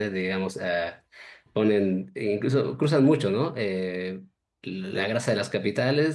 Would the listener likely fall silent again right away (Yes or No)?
Yes